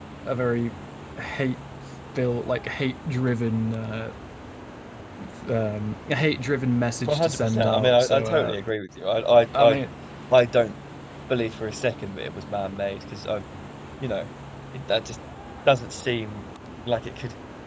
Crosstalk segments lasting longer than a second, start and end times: 7.1-8.5

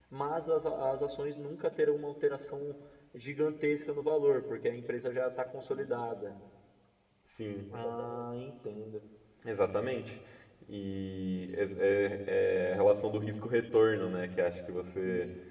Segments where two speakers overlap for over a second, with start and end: none

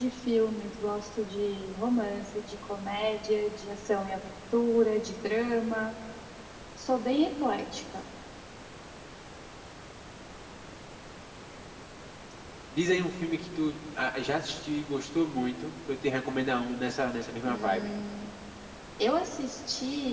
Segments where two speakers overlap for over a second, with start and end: none

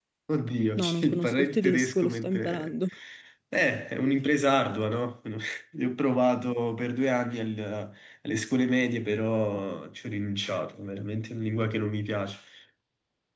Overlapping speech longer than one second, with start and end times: 0.8-2.7

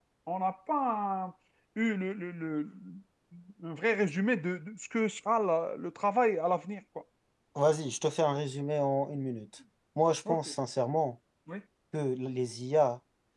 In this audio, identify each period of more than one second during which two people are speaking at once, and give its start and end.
none

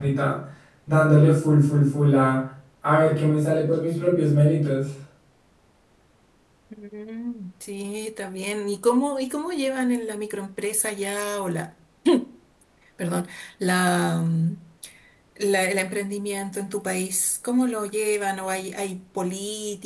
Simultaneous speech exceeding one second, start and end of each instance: none

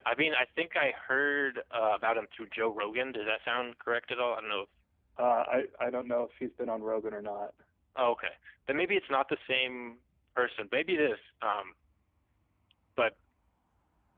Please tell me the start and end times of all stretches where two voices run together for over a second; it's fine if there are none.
none

